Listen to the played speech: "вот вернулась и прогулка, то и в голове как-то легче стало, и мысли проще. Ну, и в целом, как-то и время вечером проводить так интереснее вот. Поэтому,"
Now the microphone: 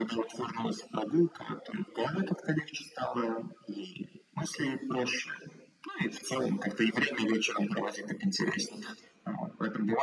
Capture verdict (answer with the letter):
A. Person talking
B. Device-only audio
B